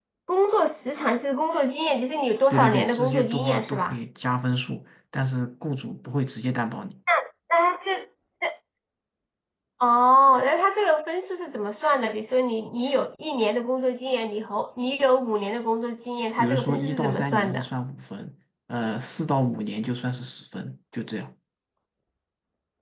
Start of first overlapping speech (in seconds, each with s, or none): 2.5 s